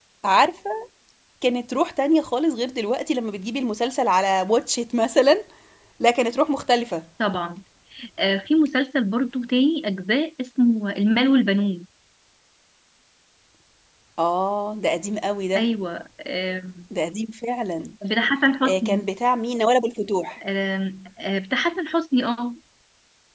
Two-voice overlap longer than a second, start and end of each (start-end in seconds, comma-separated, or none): none